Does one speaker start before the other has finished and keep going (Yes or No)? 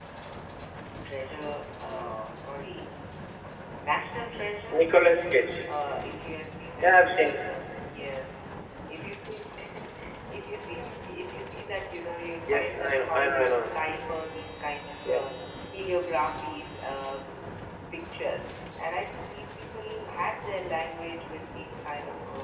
Yes